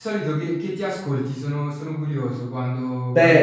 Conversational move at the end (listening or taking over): taking over